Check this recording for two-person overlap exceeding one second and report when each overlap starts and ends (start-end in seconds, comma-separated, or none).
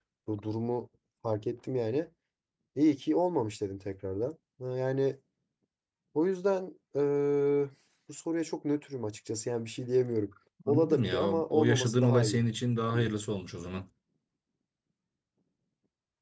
10.7-12.4